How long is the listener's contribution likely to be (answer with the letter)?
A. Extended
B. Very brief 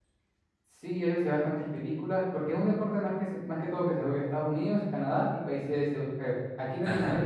B